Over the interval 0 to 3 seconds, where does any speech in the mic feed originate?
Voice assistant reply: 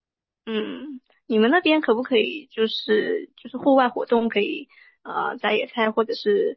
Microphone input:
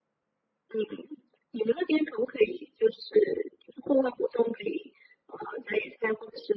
echo only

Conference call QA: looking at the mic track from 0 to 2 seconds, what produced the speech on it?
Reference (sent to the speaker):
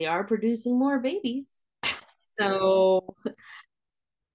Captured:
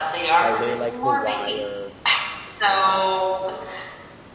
both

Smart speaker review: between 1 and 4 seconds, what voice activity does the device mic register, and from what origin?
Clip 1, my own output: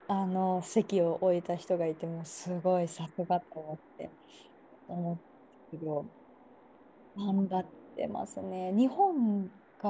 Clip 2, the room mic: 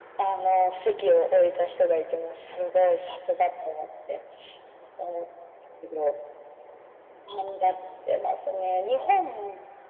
echo only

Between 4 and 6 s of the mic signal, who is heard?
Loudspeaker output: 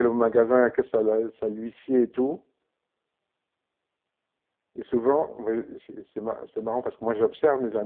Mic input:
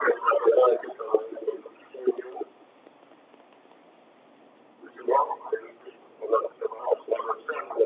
echo only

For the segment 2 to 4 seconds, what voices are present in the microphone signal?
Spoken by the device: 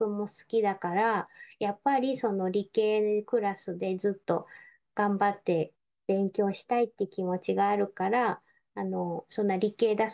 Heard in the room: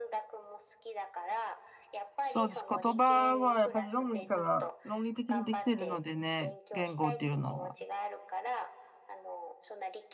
both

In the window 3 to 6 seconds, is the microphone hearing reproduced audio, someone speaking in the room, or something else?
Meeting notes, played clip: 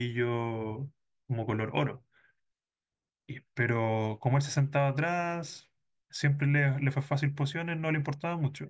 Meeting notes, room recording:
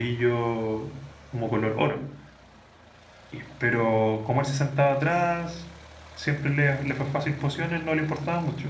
echo only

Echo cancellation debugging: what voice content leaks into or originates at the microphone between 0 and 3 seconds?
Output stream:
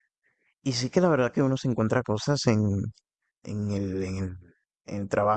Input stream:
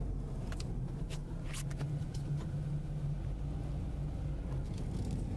neither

